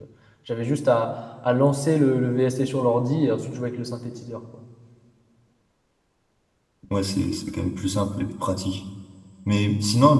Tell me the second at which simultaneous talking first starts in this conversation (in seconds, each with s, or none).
none